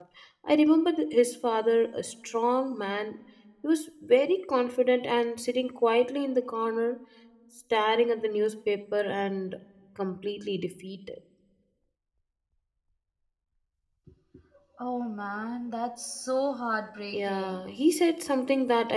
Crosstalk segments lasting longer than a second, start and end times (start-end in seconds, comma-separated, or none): none